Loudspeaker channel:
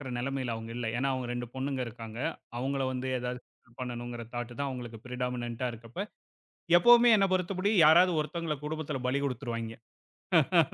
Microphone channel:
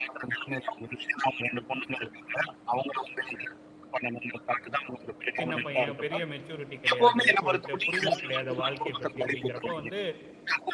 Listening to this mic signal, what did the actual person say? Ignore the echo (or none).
சின்ன பையன், பெரிய மெச்சூரிட்டி கிடையாது. ஒரு தெ புரிதல் கிடையாது வாழ்க்கைய பத்தி அப்படிங்கிறப்ப வந்து